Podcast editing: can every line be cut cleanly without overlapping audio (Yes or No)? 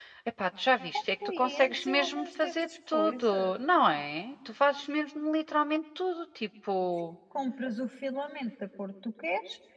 No